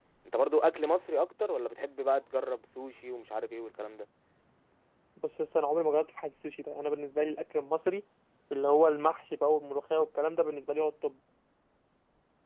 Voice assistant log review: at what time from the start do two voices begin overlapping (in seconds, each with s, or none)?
none